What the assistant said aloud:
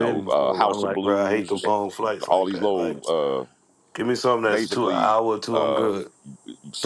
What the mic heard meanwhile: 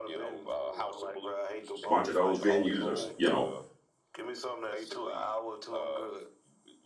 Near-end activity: present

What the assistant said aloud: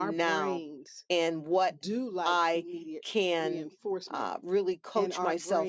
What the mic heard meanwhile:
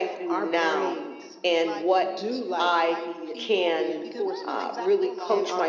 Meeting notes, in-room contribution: present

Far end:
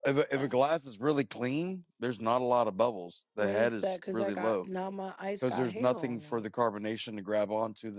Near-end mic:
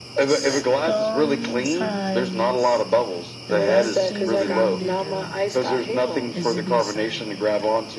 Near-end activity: present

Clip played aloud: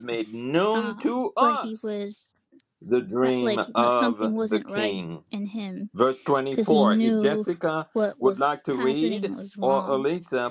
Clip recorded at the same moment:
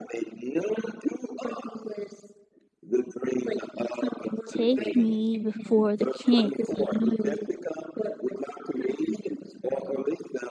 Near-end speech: present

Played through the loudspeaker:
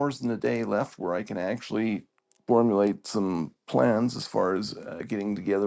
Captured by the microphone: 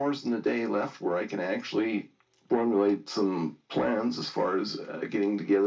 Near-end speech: none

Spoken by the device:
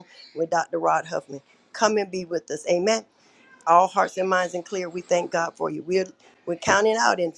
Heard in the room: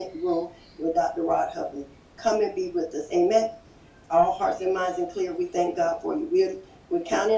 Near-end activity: none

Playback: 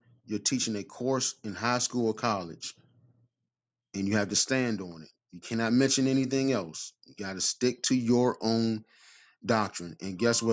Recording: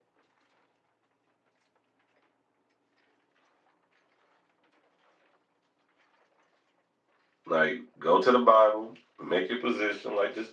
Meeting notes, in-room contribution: present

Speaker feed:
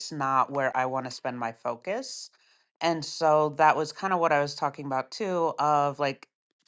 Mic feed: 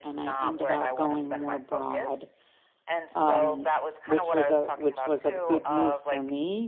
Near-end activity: present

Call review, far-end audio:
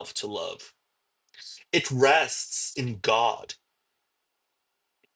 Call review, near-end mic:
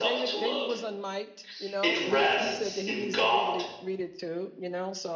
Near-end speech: present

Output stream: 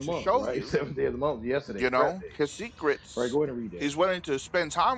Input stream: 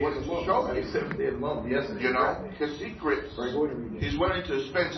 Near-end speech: none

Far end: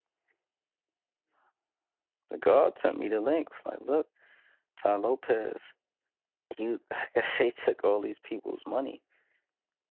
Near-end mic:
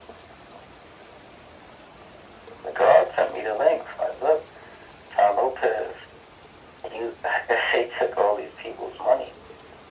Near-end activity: none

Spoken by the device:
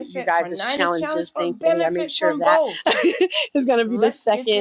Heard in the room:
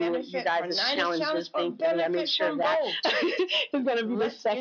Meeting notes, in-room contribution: none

